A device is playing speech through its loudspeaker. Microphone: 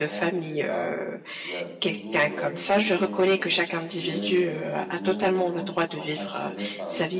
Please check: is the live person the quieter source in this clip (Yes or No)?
No